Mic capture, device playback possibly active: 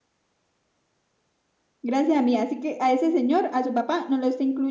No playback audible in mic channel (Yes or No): Yes